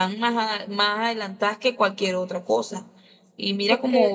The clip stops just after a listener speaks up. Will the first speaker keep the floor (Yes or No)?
Yes